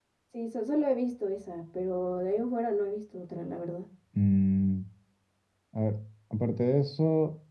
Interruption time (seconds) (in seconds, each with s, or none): none